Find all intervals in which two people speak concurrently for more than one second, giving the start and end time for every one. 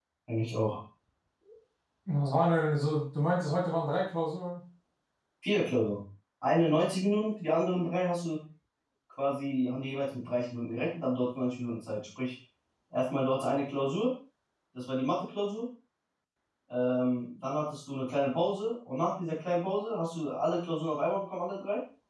none

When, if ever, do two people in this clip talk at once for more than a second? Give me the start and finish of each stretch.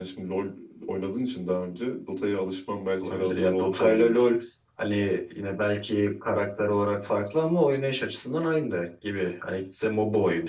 3.0-4.2

